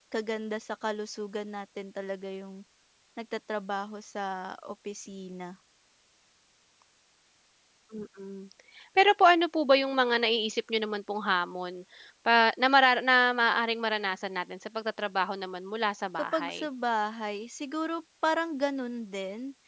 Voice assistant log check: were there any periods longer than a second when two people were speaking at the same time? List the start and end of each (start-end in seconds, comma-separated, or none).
none